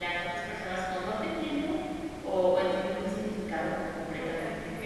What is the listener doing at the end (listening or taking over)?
taking over